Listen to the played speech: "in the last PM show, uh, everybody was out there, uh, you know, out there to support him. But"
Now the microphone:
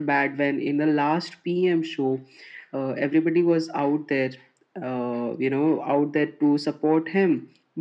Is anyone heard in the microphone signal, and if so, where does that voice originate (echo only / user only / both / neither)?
echo only